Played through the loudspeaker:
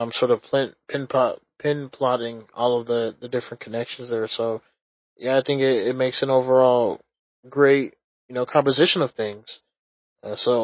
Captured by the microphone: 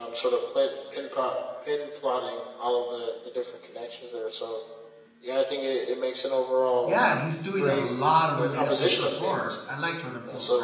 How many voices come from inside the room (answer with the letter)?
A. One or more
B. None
A